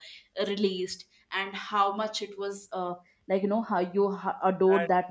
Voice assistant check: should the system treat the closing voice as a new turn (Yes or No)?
No